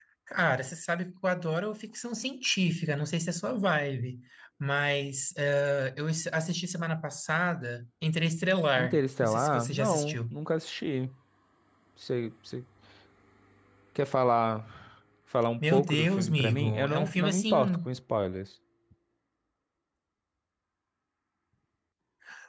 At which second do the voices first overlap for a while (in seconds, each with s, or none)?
8.8 s